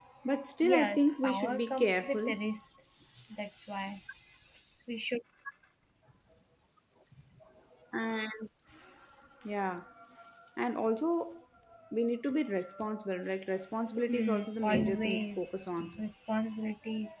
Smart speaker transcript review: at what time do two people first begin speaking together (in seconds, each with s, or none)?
0.6 s